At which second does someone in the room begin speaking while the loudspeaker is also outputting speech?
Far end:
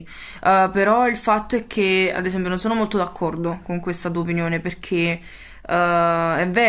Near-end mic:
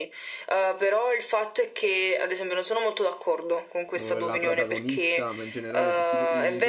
4 s

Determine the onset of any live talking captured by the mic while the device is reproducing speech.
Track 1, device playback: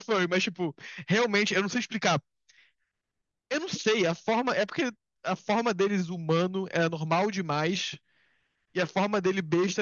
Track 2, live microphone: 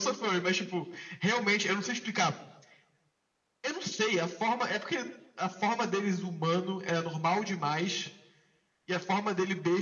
none

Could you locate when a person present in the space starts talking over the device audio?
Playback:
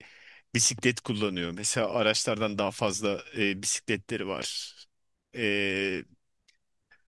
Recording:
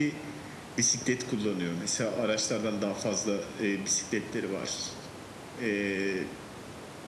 none

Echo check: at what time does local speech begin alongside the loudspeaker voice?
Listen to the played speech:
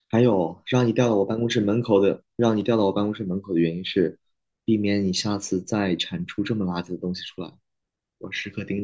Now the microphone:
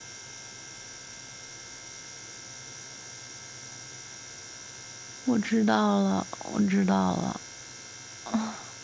5 s

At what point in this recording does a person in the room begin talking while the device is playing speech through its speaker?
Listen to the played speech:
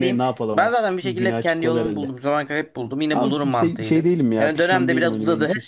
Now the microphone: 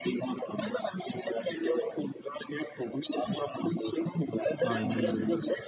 5 s

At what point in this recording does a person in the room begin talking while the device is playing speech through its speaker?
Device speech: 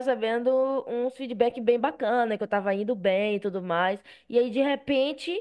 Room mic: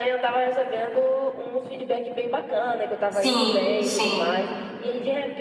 3 s

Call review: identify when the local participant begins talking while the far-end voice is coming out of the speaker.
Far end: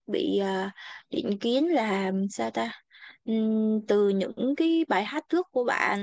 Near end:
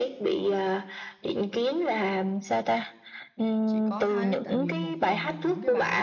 4 s

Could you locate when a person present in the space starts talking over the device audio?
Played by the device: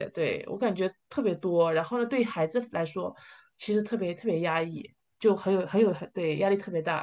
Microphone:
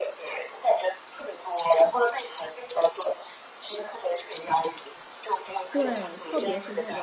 6 s

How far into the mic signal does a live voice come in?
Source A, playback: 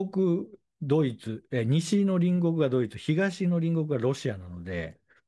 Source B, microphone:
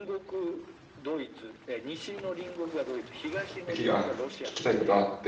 4 s

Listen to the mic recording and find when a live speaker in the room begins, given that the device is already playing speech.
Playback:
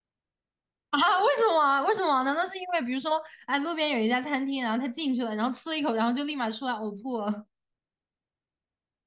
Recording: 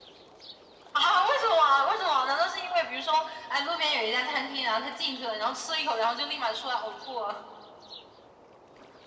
none

